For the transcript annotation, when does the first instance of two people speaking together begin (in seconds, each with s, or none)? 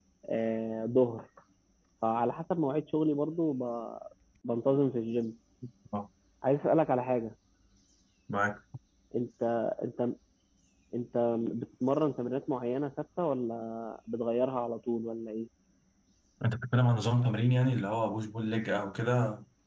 none